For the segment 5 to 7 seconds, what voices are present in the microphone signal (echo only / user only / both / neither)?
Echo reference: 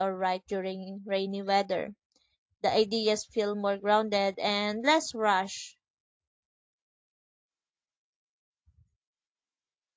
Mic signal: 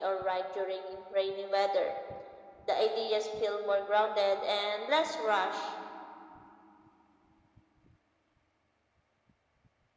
echo only